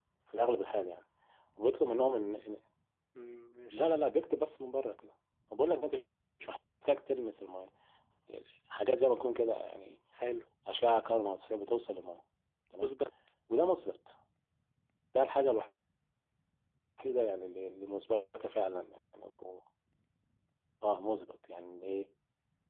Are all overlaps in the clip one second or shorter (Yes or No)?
Yes